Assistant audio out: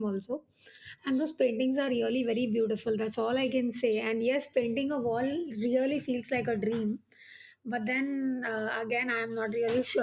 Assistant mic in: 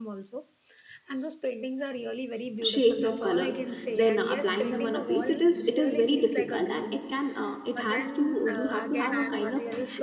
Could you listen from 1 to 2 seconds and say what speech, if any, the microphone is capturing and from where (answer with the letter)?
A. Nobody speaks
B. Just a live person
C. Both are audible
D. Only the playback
D